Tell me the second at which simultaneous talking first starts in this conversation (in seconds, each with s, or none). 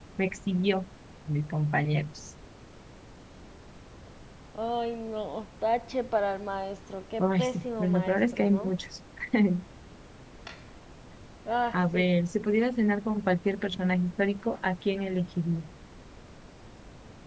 7.2 s